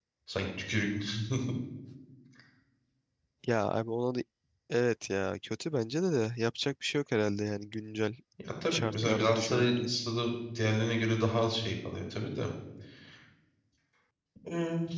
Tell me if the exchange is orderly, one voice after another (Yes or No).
No